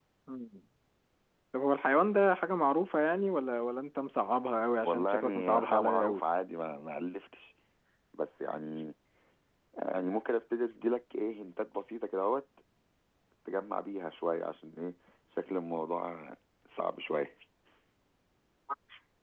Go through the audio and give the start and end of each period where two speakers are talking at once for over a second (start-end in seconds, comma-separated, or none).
4.8-6.2